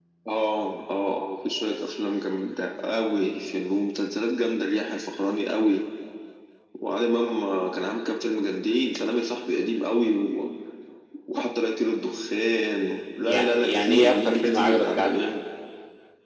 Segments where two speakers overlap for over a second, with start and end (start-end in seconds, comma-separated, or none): 13.2-15.3